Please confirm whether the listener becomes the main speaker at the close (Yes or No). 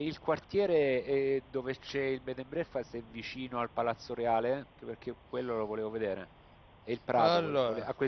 No